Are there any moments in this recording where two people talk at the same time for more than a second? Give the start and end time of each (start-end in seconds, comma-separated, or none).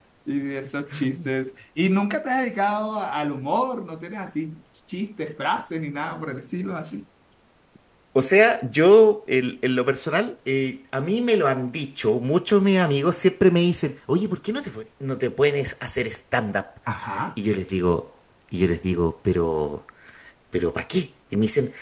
none